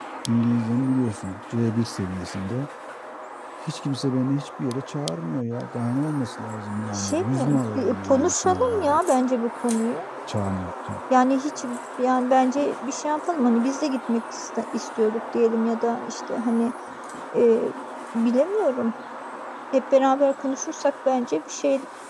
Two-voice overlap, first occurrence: 6.9 s

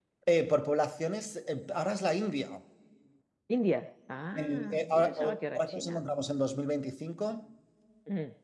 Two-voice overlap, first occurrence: 4.3 s

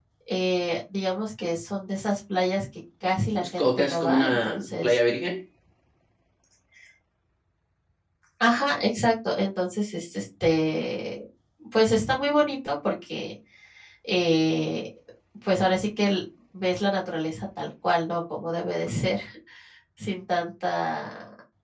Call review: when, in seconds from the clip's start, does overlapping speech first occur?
3.4 s

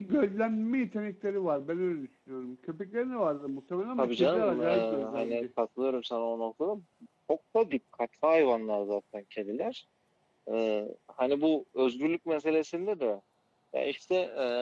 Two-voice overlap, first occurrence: 4.0 s

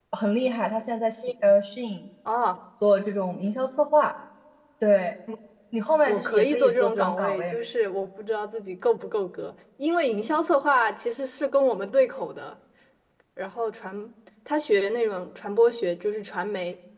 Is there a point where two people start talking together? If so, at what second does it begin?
6.1 s

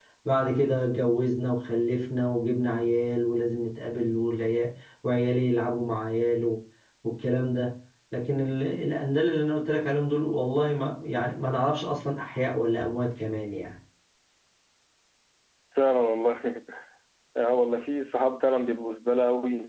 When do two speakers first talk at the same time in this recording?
none

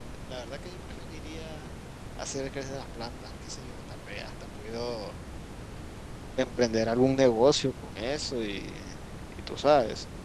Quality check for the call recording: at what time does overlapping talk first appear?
none

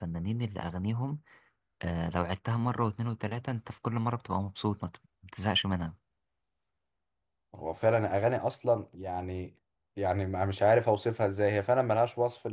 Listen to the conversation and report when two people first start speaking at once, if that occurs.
none

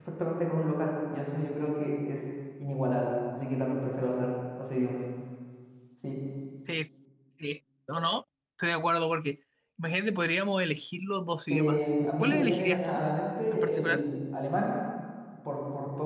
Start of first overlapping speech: 11.5 s

